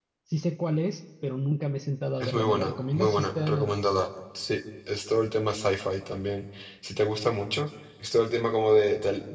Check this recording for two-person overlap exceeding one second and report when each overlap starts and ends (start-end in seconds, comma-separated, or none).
2.2-3.8